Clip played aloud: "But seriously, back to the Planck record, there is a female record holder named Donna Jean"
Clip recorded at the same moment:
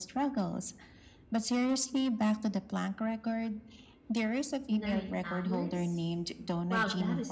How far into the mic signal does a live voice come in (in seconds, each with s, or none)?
4.7 s